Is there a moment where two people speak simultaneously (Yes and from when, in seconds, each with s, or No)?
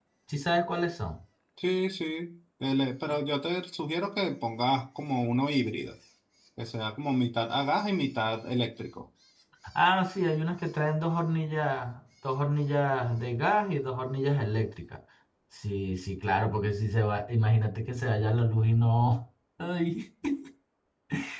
No